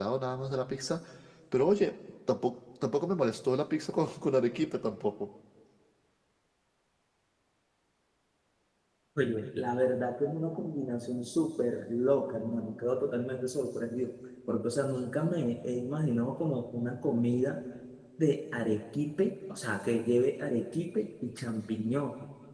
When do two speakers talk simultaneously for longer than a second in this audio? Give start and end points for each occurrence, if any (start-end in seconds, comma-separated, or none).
none